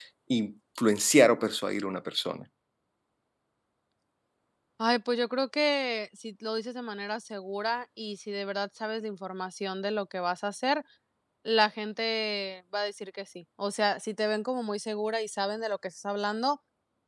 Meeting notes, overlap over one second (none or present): none